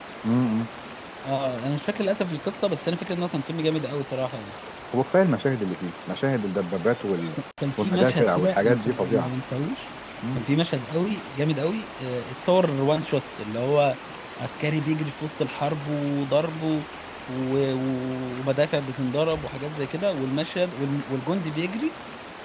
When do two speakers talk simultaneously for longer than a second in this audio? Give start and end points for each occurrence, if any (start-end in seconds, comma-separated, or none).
7.8-9.3